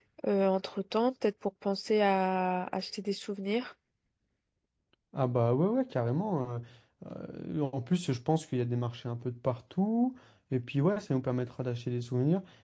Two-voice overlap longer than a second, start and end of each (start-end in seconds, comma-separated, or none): none